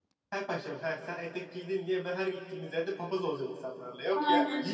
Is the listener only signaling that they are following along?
No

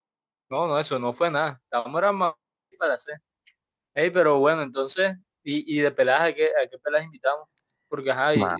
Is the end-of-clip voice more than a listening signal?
No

